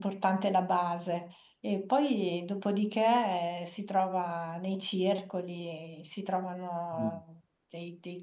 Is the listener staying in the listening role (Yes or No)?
Yes